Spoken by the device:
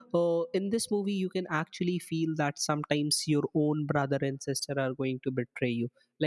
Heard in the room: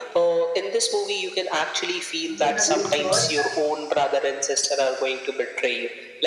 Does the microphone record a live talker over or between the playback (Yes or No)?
Yes